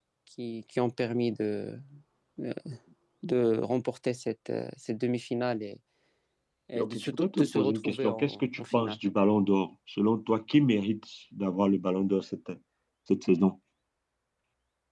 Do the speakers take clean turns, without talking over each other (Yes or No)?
No